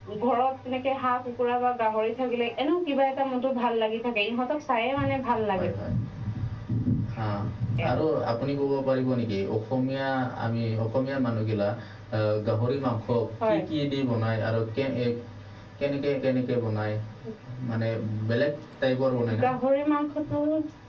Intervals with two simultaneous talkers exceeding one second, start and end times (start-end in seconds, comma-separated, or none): none